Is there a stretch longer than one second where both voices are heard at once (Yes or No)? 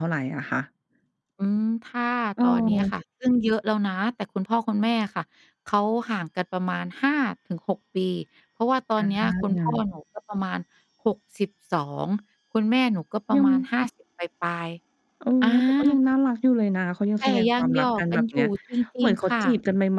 Yes